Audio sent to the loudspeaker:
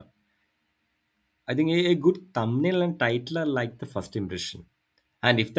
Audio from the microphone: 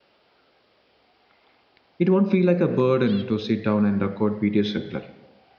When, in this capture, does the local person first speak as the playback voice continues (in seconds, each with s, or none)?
2.0 s